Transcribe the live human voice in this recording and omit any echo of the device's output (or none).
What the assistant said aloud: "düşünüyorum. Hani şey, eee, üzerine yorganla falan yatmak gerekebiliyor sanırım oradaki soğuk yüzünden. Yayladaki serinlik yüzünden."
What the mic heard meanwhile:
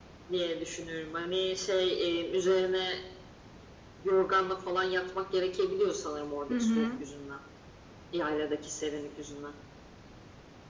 Hı hı.